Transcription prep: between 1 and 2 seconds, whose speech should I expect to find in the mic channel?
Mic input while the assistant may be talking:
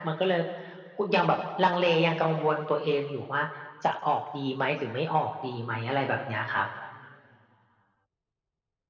echo only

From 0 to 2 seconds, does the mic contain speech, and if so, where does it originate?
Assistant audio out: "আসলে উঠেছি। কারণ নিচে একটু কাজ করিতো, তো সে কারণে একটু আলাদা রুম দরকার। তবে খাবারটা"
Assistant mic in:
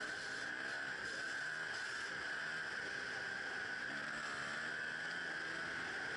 neither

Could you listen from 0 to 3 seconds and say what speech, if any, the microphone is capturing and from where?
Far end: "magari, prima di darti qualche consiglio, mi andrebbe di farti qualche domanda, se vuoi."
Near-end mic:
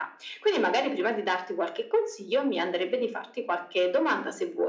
echo only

